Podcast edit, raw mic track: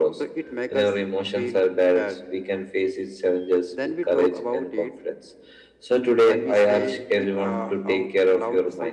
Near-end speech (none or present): none